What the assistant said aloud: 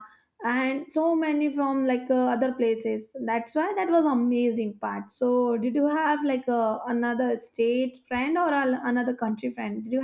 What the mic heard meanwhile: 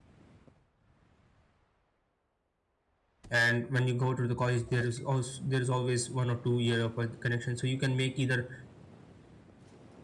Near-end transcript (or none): and when you go to the college there is also there is always one or two year of con- connection so you can make either